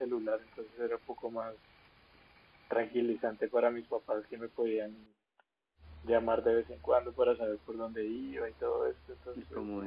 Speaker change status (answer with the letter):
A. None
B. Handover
A